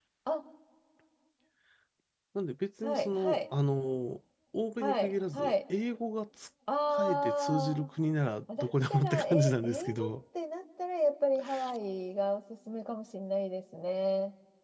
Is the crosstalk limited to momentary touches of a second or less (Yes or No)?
No